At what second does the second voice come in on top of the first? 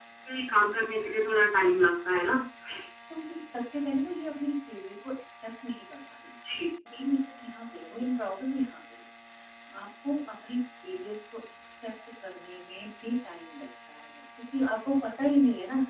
none

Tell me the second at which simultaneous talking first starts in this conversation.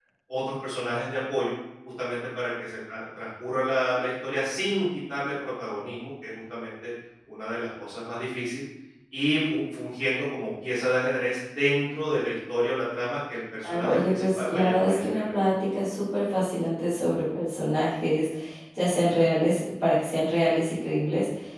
13.6 s

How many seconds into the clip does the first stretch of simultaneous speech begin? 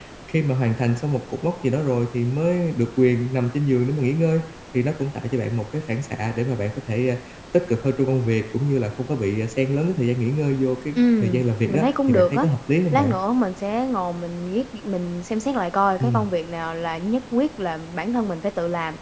10.9 s

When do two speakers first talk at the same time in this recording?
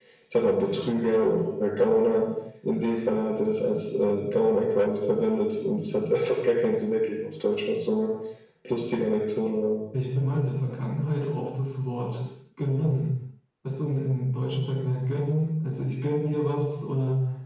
none

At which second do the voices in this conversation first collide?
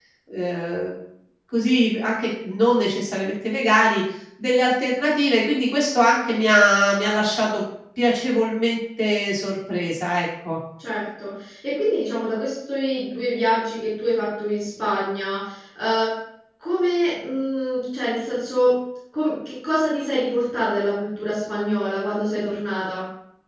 none

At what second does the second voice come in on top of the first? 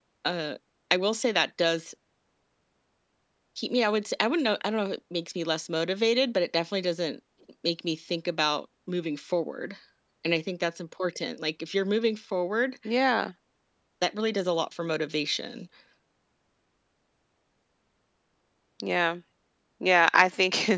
none

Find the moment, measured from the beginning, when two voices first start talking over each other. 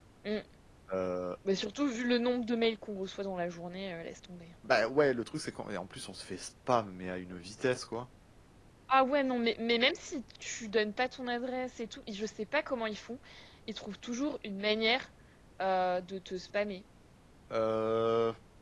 none

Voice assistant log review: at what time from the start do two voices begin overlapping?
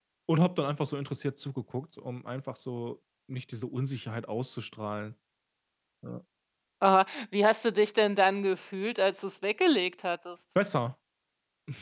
none

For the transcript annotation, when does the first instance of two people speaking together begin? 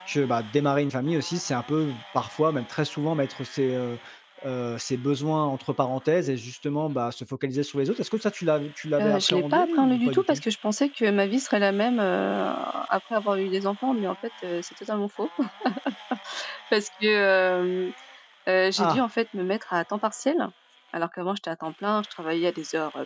9.0 s

